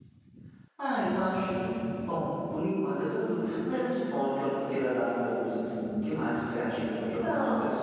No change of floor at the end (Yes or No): No